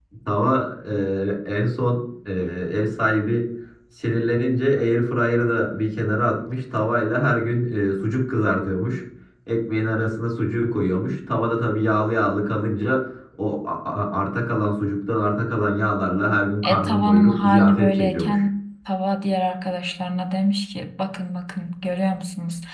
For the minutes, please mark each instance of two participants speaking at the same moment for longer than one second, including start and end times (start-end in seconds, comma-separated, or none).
16.6-18.4